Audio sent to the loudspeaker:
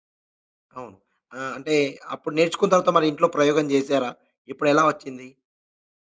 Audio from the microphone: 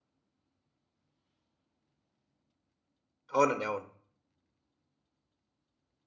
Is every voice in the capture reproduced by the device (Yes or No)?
No